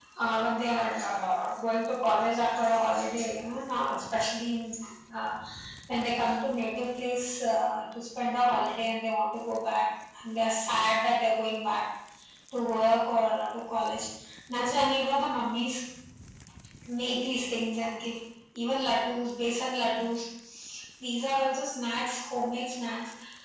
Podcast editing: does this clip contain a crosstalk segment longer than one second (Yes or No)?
No